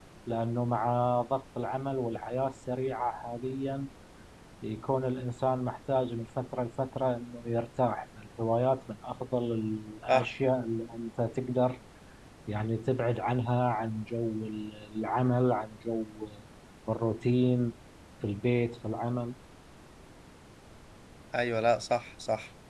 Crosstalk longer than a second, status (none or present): none